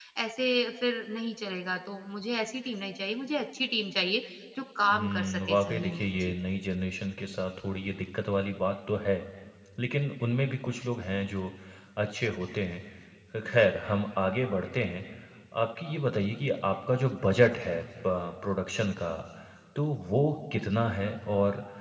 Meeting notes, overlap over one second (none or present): present